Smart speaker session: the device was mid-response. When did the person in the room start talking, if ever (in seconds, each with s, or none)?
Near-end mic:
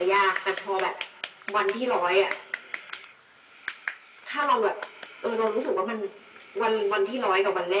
none